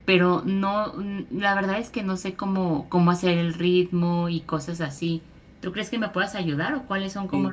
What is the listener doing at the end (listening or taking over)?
taking over